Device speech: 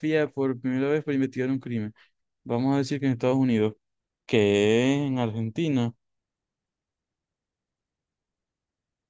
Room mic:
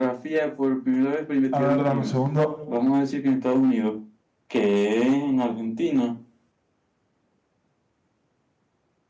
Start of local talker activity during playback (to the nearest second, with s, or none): 2 s